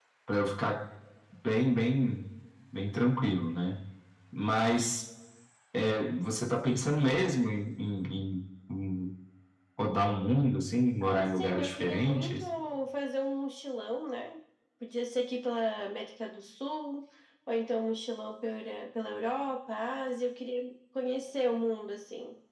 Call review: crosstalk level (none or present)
present